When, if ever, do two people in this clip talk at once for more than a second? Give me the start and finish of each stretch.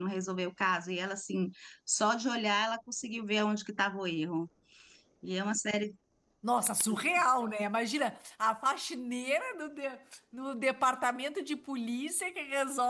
none

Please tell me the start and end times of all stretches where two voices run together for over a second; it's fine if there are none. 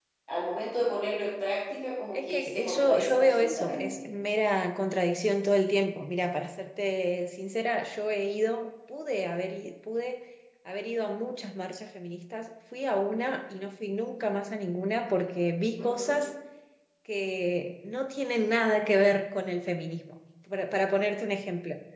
2.1-4.0

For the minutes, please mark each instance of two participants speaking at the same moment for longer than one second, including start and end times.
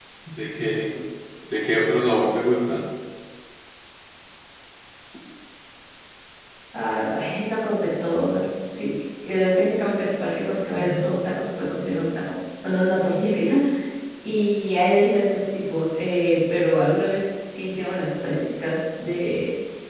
none

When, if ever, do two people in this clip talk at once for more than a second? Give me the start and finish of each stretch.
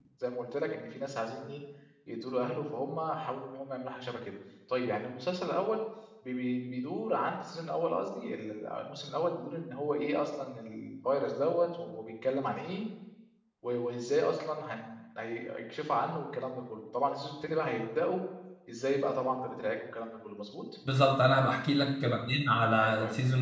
none

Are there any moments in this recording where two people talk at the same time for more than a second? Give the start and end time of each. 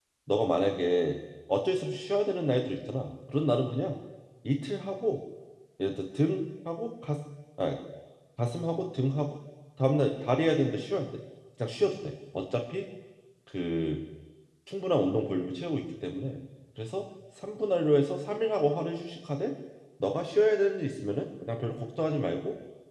none

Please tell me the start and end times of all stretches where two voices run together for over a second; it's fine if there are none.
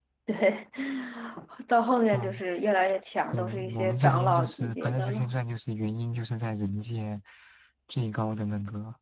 3.3-5.3

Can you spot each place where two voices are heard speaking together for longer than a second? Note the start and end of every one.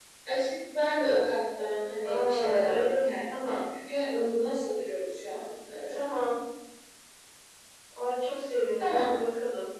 2.0-3.6

